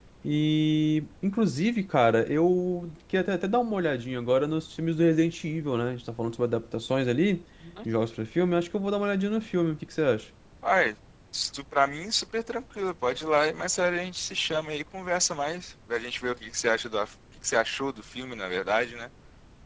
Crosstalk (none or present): none